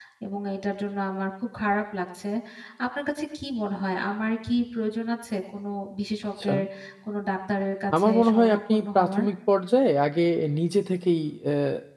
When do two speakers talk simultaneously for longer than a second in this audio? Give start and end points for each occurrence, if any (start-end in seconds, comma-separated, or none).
8.0-9.2